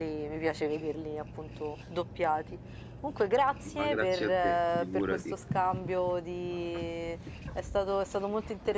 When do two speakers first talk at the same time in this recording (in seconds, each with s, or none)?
3.7 s